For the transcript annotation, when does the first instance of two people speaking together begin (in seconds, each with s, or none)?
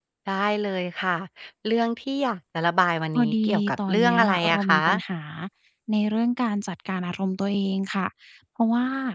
3.2 s